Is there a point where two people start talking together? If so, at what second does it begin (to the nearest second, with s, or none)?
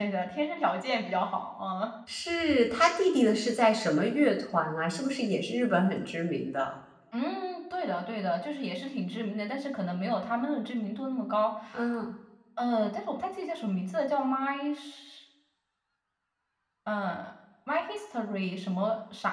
none